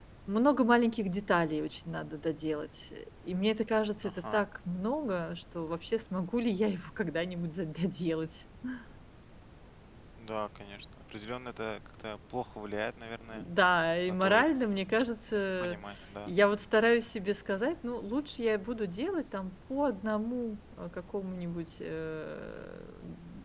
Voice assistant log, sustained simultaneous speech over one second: none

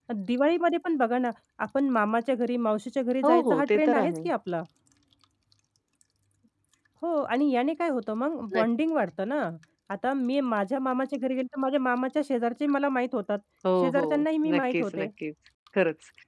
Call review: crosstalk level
present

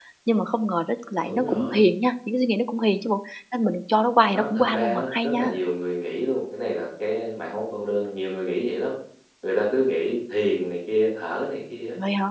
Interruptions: present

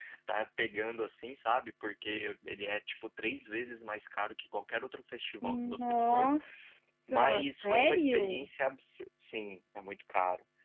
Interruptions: present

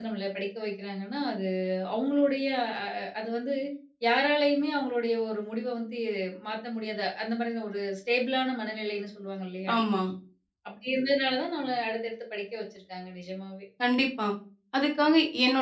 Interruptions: none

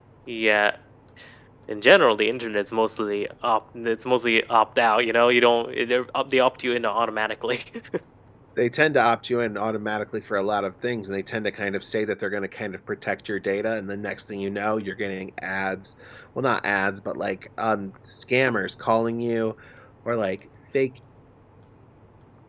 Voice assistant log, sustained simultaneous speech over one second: none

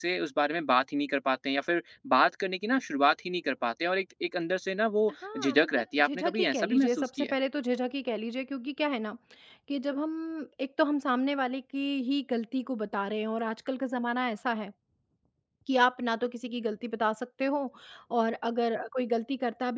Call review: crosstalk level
present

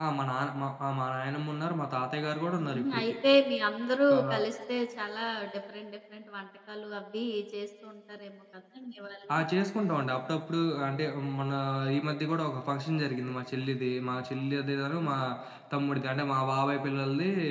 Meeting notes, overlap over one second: none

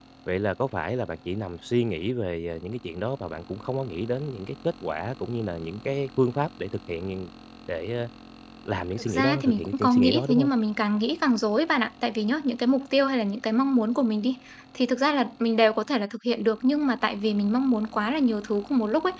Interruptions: present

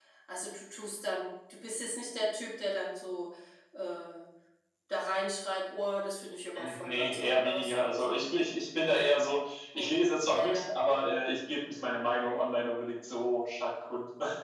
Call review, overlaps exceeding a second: present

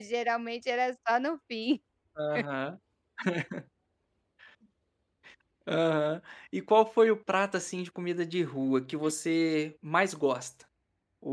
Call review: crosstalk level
none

